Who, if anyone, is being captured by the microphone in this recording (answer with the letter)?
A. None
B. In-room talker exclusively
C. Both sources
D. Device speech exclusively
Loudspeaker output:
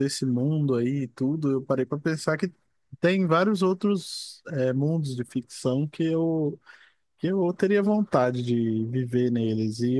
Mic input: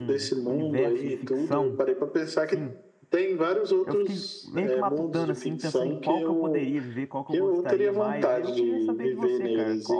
C